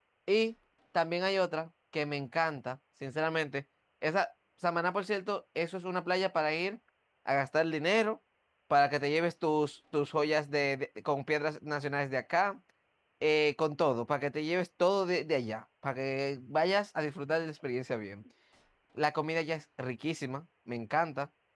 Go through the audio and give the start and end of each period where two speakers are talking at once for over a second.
none

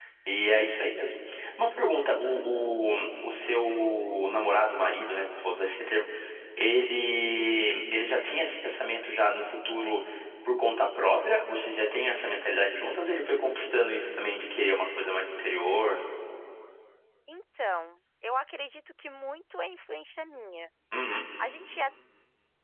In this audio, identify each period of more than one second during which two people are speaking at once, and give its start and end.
none

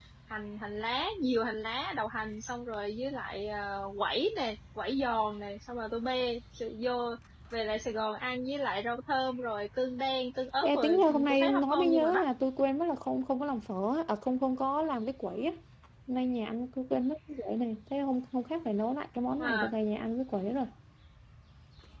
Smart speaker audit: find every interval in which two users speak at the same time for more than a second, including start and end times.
10.6-12.2

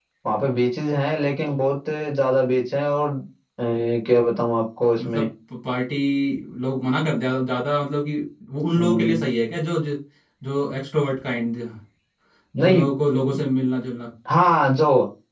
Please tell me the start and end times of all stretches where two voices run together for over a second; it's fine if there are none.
none

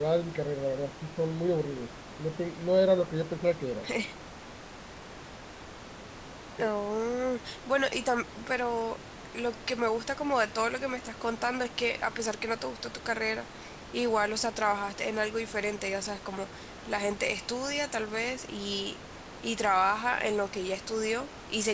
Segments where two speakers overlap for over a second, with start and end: none

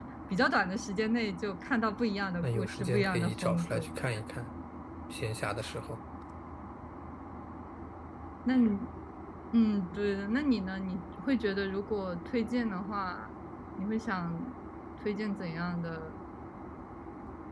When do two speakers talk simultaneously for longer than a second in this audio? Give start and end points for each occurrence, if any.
2.4-3.9

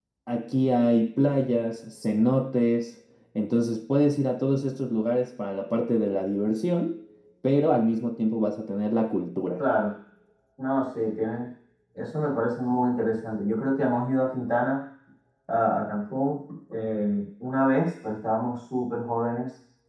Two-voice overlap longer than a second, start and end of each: none

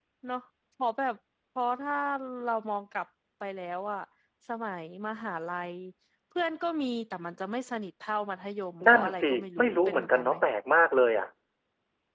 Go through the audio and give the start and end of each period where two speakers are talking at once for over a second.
8.8-10.3

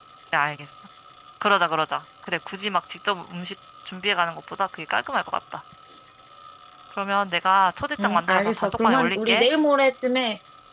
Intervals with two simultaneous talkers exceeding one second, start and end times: 8.0-9.5

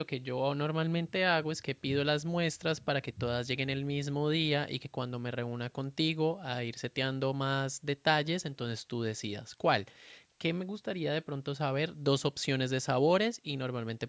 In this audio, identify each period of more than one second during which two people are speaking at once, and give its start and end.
none

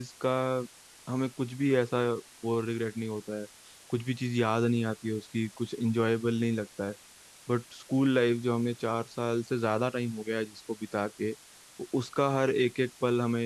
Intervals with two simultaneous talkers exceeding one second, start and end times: none

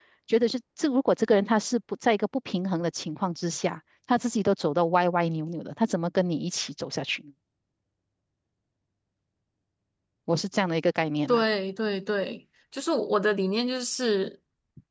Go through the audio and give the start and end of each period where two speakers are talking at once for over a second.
none

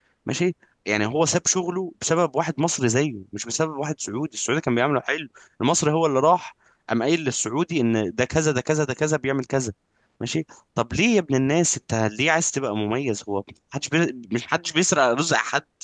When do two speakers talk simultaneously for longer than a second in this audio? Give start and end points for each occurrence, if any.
none

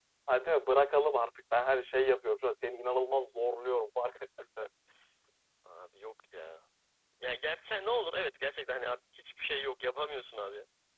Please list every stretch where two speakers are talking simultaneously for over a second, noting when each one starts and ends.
none

